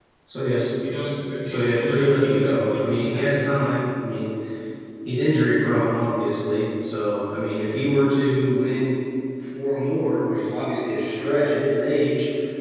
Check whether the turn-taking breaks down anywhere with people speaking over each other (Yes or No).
Yes